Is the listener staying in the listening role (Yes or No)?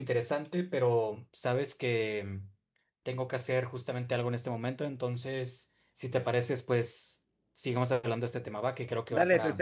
No